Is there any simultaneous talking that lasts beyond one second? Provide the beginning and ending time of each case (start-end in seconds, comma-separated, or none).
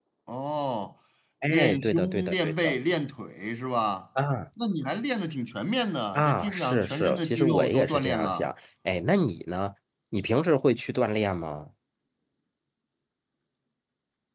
1.5-2.8, 6.1-8.5